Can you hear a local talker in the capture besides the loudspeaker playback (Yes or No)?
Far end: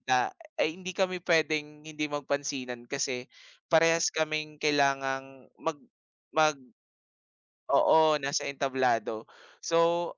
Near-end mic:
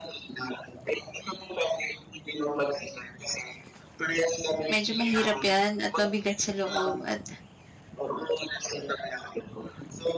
Yes